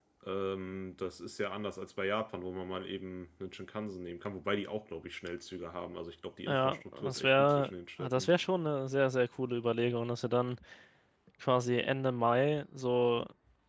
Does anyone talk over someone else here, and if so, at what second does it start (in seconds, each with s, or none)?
6.5 s